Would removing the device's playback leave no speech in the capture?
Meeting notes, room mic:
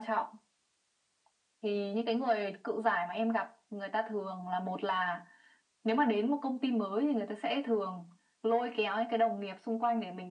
Yes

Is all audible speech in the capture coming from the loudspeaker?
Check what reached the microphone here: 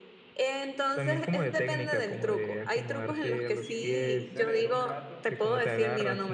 No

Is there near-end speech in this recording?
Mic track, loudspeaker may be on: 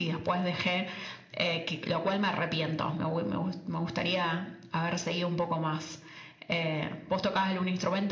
No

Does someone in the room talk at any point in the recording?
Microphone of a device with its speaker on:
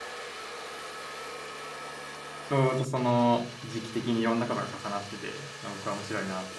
Yes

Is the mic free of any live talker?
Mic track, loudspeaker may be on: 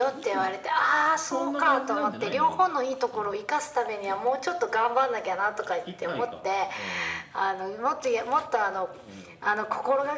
No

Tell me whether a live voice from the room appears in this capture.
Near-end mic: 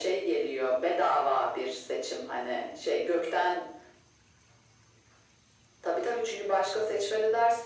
No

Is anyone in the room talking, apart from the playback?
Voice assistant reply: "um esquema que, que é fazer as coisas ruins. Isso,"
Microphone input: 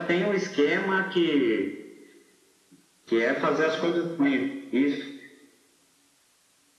No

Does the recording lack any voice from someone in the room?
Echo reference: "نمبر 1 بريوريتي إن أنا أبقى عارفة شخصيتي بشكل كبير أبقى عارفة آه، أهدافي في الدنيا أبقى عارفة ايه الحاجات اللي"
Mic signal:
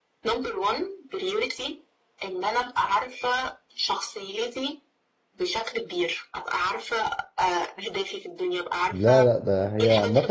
No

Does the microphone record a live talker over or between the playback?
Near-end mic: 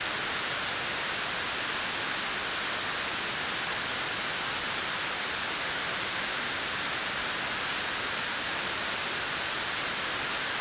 No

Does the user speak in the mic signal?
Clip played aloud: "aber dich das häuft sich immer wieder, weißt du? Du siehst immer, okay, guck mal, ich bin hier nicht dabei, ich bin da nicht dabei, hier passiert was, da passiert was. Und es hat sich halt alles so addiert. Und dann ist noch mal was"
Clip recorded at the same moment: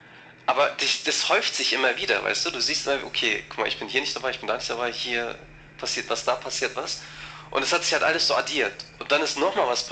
No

